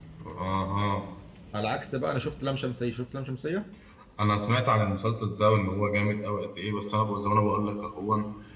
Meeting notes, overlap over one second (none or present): none